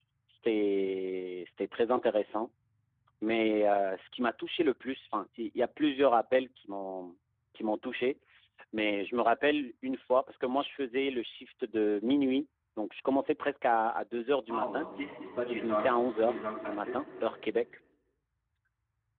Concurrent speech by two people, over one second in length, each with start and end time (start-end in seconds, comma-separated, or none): 15.5-17.0